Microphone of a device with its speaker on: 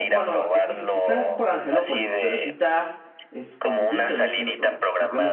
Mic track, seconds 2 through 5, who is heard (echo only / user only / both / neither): both